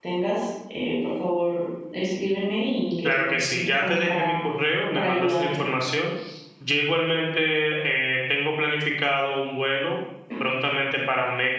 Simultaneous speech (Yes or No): Yes